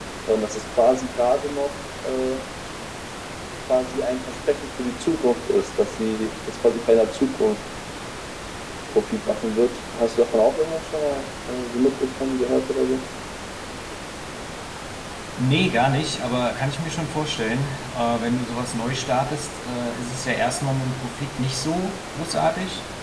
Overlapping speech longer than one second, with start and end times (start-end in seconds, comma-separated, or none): none